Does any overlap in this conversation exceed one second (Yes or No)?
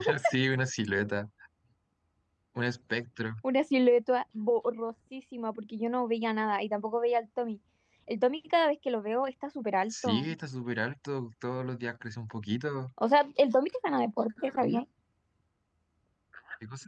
No